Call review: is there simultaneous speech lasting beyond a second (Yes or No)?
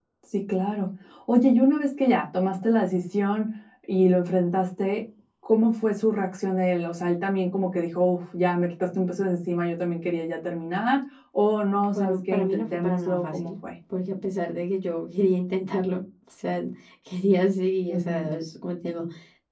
Yes